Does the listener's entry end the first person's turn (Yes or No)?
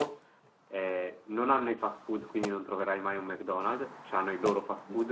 No